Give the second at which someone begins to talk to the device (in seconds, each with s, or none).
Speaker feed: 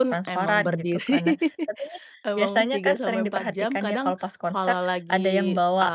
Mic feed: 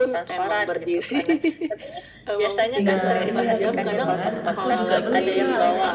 2.8 s